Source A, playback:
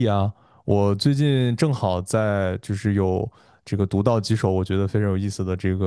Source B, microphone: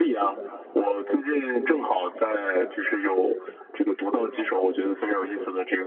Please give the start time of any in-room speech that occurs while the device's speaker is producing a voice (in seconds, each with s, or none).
none